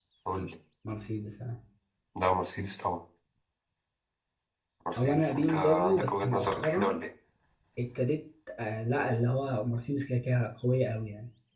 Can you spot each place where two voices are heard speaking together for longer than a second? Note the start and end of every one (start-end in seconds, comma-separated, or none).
5.0-7.0